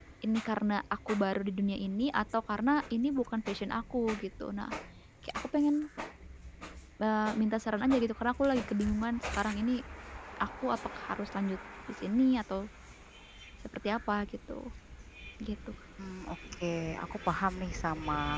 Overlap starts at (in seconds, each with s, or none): none